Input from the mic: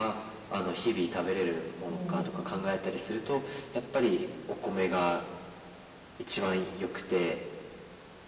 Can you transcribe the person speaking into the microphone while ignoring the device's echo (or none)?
も